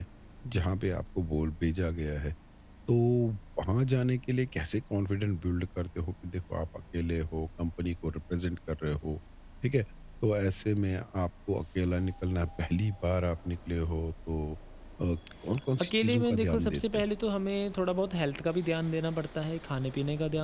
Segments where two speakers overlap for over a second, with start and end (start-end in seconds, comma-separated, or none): 15.8-17.0